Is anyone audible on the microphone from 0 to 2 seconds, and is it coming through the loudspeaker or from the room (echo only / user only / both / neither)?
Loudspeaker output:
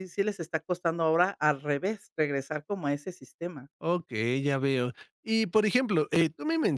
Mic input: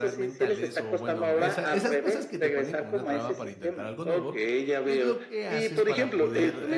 both